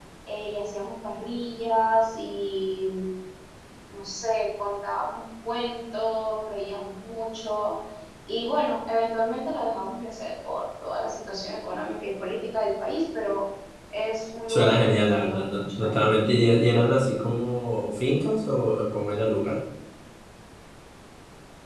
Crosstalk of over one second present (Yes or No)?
Yes